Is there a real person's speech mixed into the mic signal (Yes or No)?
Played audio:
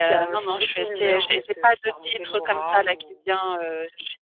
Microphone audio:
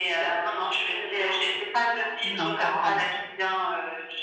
Yes